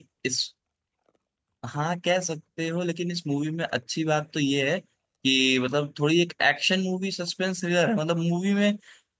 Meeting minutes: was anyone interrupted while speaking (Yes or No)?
No